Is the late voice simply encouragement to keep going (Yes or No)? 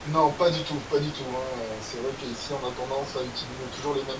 Yes